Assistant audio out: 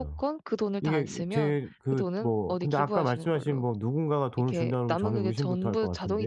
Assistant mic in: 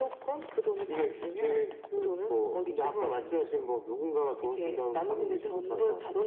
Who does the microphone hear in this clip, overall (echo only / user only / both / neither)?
echo only